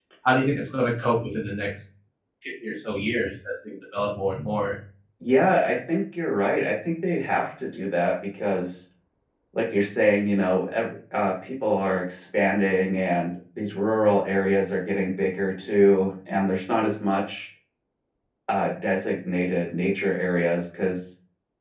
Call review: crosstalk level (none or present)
none